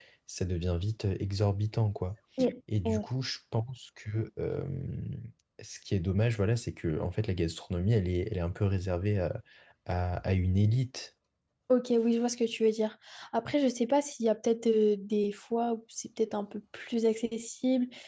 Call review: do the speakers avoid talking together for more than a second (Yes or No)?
Yes